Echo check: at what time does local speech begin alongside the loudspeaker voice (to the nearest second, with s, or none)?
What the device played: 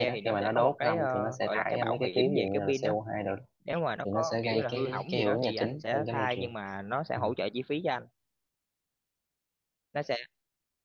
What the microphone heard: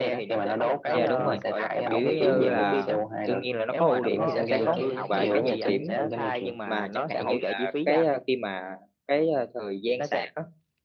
1 s